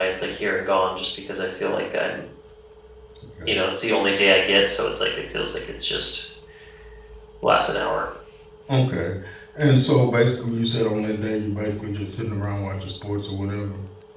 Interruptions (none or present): none